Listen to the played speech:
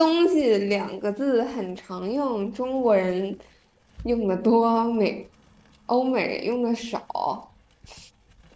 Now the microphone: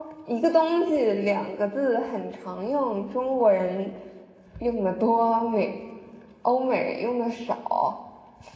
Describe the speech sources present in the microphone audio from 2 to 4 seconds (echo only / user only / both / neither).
echo only